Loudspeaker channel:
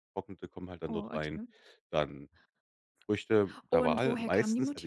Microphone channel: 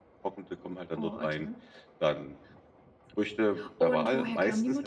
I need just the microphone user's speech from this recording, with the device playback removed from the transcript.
none

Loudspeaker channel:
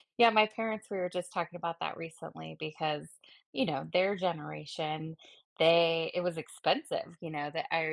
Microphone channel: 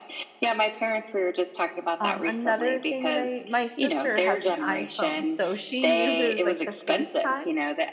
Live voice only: Um, another thing that I my sister has an iPhone so she uses, like, the FaceTime,

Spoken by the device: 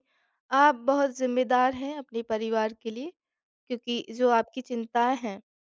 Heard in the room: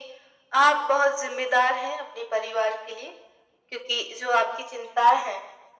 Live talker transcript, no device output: none

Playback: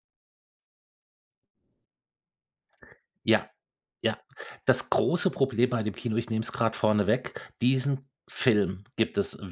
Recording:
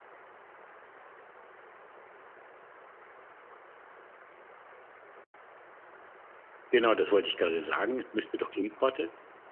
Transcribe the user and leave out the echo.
Genau, das wollte ich gerade sagen. Es müsste doch Importe

